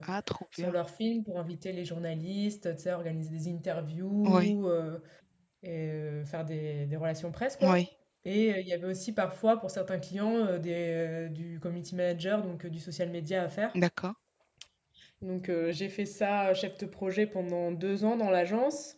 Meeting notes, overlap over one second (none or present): none